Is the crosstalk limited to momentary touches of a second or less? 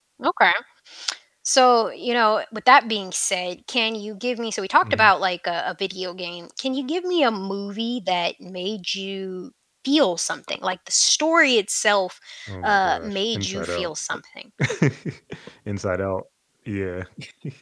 No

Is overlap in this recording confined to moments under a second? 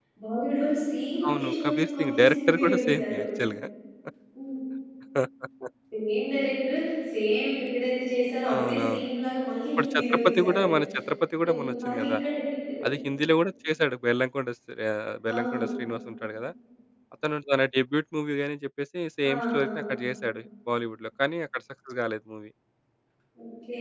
No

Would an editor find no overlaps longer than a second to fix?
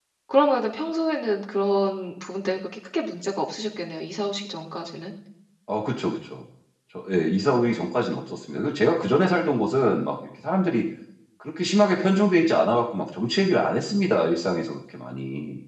Yes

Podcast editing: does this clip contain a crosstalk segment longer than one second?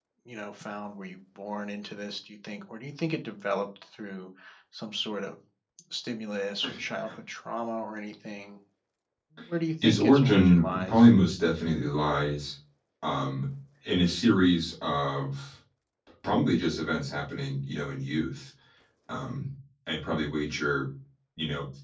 Yes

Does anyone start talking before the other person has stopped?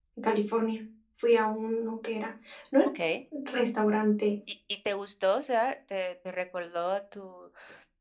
No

